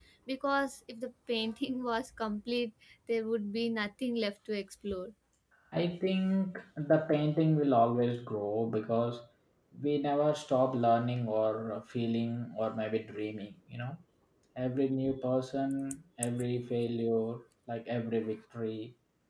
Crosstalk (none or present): none